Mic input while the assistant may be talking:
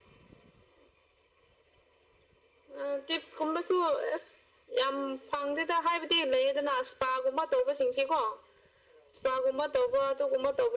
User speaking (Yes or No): No